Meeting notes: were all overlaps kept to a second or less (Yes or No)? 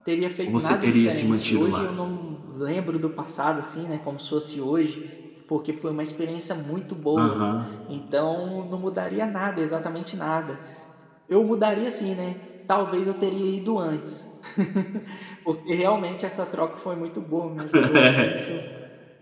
No